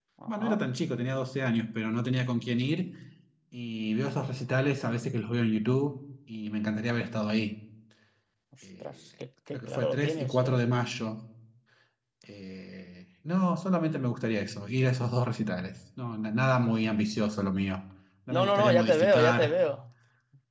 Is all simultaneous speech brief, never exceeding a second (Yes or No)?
No